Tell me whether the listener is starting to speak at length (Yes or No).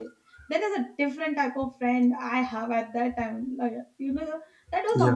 No